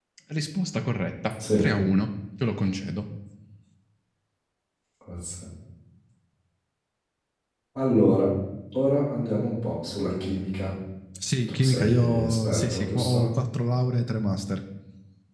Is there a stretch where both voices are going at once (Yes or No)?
Yes